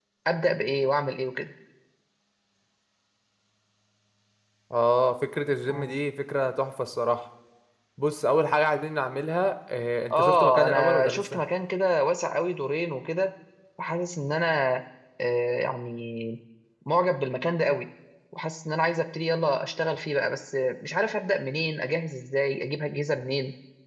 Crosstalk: present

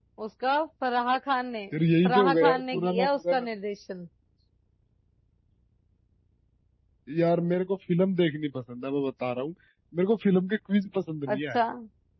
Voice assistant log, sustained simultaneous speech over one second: present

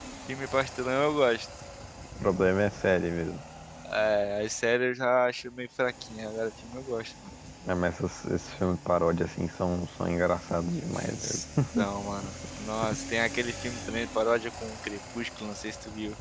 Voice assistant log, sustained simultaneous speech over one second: none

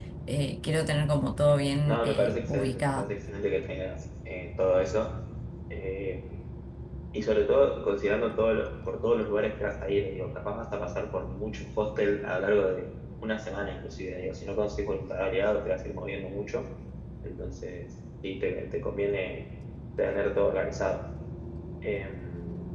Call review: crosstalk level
present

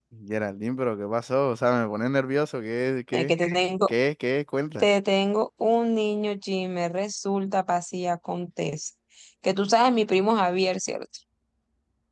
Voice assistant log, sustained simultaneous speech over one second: none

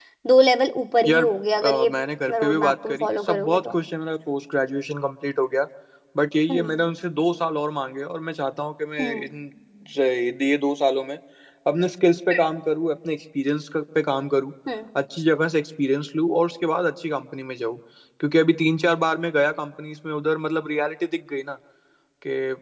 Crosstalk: present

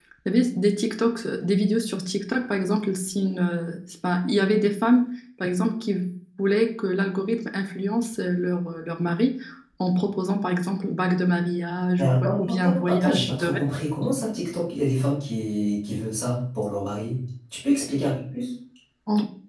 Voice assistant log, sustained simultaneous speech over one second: present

